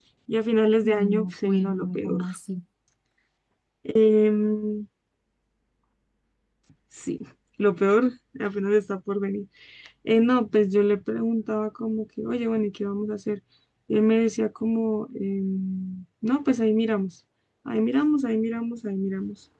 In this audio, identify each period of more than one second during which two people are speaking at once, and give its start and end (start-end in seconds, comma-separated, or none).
0.9-2.2